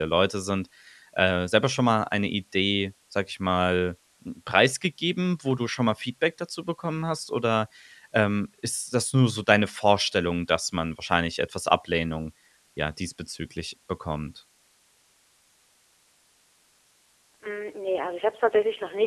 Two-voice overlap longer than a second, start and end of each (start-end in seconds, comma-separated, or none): none